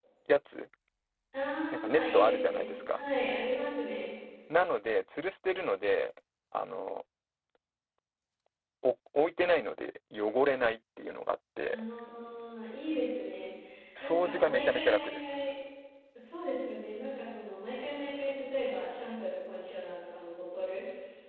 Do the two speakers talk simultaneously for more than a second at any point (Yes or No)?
Yes